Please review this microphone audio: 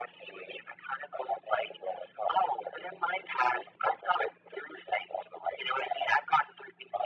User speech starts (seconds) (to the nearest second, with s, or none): none